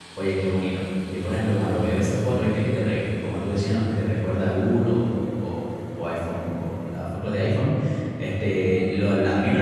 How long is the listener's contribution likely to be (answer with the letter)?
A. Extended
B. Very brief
B